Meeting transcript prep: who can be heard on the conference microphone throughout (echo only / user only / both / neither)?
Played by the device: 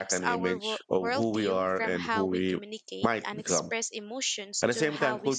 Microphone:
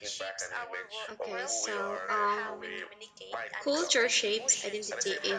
both